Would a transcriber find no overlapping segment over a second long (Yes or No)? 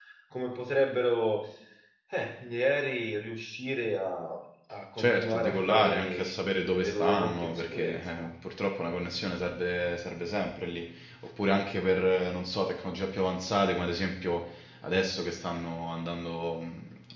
No